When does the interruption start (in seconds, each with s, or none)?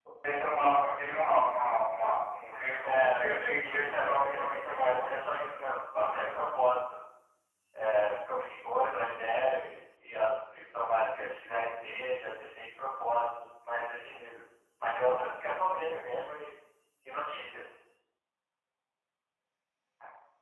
2.8 s